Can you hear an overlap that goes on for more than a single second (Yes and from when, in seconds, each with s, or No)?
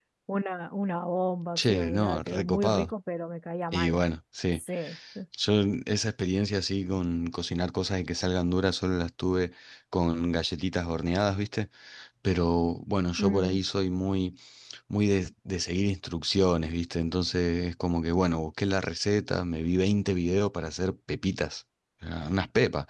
Yes, from 1.6 s